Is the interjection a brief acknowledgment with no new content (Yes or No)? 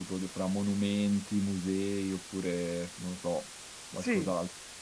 No